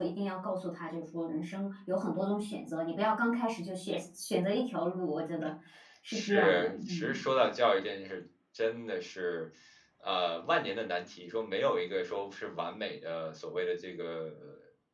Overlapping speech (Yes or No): Yes